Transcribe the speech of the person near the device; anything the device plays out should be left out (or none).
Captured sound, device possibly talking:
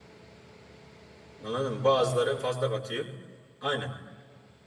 Anladın mı? Bazıları fazla katıyor. Aynen.